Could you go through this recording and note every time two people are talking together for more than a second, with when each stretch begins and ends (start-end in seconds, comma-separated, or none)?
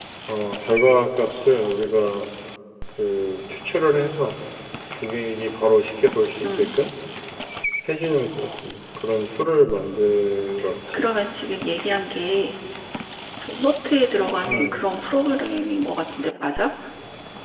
none